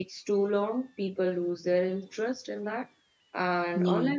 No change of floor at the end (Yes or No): Yes